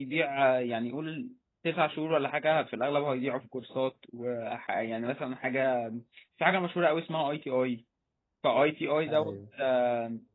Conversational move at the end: listening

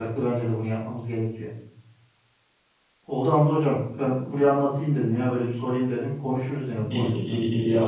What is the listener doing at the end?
taking over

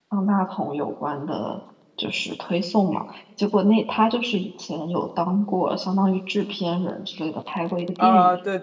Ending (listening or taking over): taking over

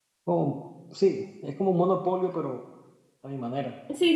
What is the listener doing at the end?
taking over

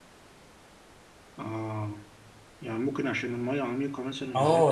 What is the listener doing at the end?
taking over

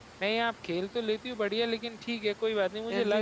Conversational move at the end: listening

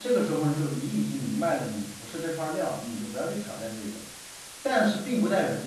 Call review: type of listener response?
listening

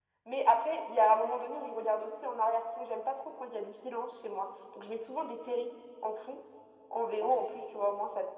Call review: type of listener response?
listening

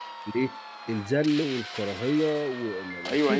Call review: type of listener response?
taking over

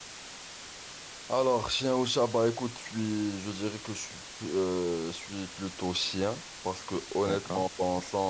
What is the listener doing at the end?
listening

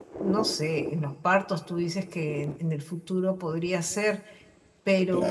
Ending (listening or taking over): listening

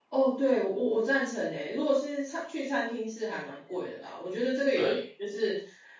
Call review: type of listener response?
listening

